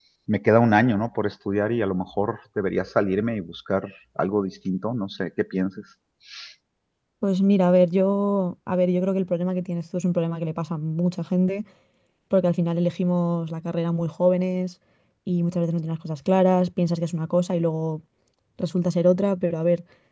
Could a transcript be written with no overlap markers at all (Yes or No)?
Yes